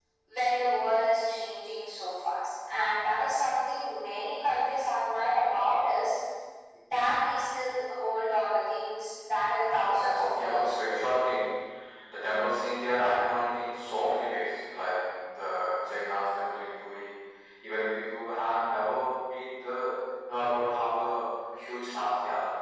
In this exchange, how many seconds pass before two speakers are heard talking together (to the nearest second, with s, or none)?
10 s